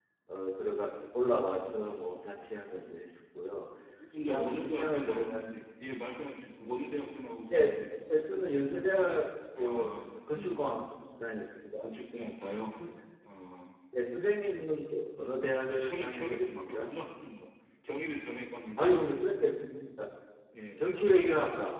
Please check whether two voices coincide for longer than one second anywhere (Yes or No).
Yes